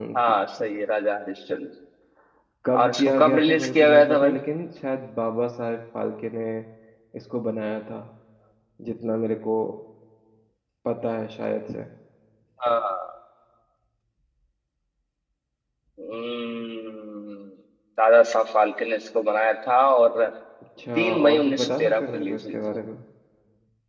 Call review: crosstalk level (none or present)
present